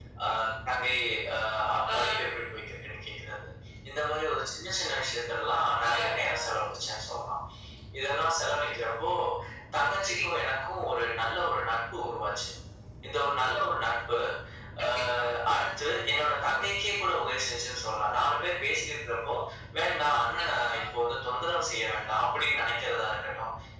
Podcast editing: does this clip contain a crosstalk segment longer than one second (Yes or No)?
No